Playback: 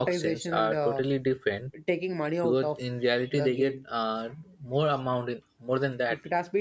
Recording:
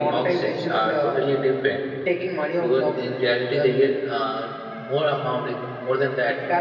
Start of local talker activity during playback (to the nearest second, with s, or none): none